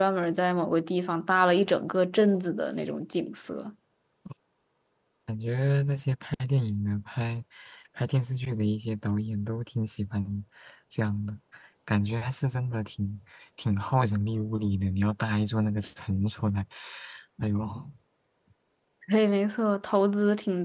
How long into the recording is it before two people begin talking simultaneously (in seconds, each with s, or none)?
none